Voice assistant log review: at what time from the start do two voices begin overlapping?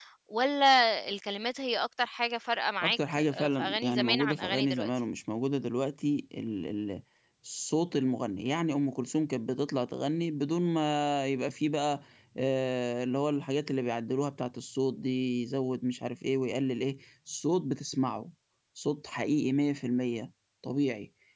2.8 s

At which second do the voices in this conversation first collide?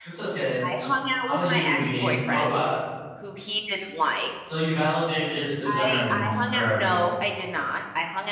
1.3 s

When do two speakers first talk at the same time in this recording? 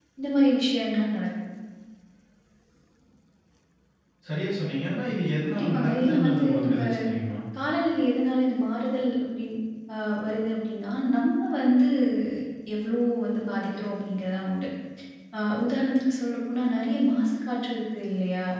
5.5 s

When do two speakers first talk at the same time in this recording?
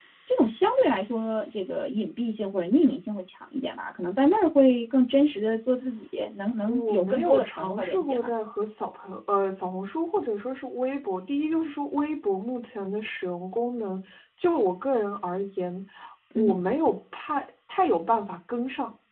6.7 s

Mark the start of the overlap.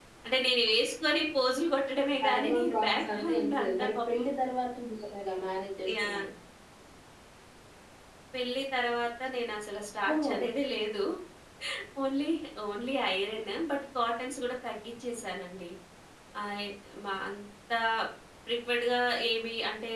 2.2 s

